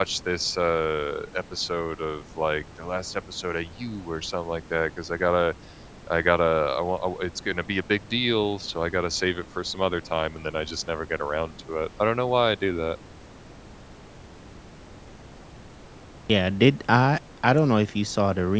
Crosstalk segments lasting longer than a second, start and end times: none

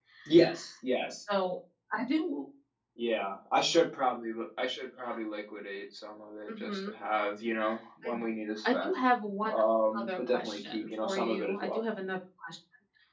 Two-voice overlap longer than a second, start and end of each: 10.0-11.8

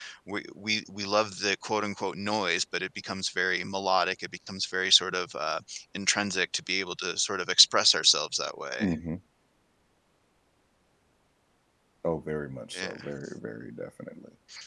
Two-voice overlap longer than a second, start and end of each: none

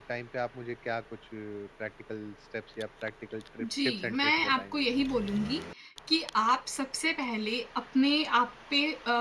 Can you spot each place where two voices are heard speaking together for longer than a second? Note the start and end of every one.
3.6-4.8

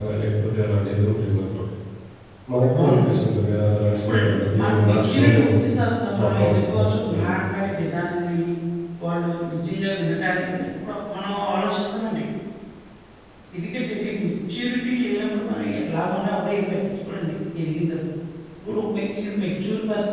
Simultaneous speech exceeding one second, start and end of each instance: 4.1-5.5, 6.2-7.4

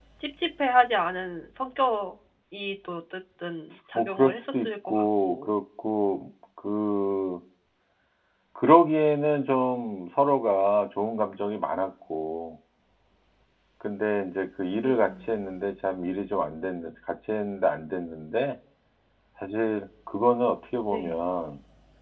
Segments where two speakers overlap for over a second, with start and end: 4.0-5.5

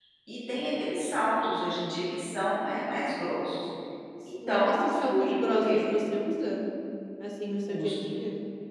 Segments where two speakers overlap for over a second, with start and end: 4.5-5.9

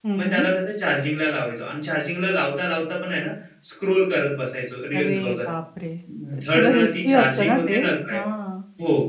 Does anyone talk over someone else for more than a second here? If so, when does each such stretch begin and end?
6.4-7.8

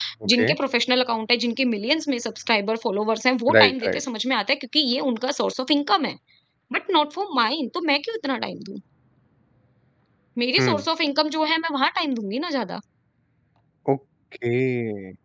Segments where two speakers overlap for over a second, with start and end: none

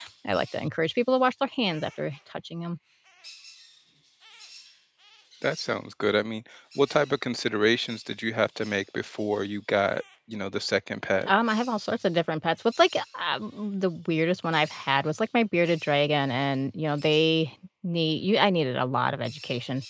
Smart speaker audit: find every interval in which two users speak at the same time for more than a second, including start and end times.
none

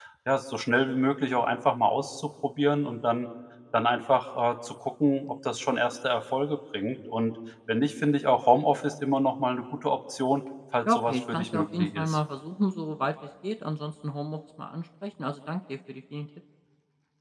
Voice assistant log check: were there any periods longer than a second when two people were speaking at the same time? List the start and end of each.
10.9-12.2

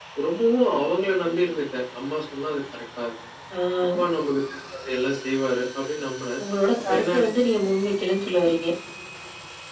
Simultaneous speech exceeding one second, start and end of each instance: none

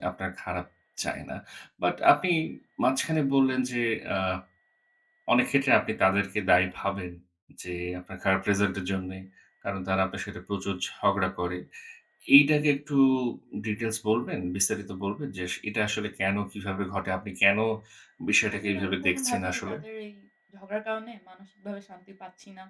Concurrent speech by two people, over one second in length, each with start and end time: 18.5-19.7

